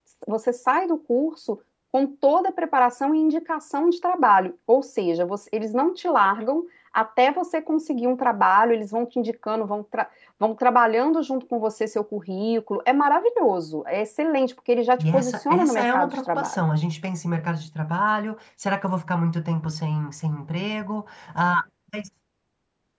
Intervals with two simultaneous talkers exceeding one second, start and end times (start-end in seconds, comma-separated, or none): 15.0-16.6